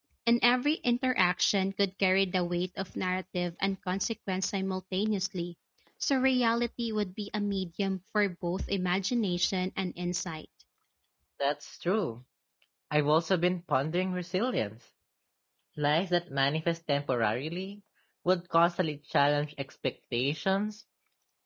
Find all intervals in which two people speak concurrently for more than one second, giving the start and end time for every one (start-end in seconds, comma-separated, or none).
none